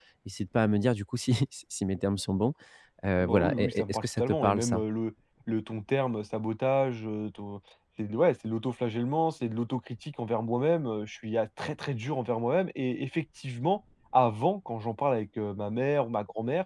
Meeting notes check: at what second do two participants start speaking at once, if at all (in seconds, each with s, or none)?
3.2 s